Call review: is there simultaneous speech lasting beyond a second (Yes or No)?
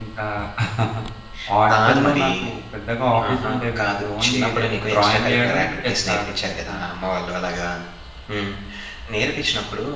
Yes